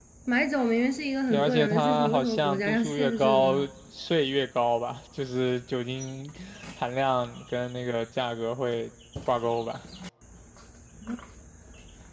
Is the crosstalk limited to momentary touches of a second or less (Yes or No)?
No